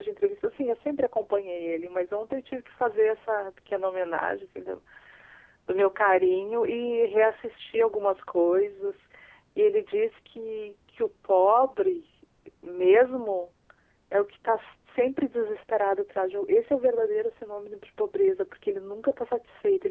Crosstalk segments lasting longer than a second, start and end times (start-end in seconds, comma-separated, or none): none